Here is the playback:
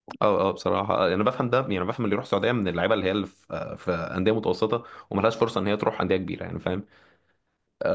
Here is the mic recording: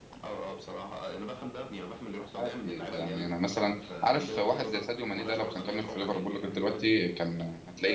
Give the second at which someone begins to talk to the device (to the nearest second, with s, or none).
2 s